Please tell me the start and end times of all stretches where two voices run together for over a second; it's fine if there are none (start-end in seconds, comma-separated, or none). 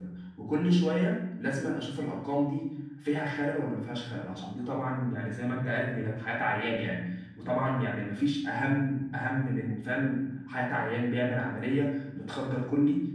none